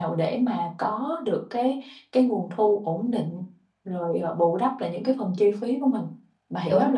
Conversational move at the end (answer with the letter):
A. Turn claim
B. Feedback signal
A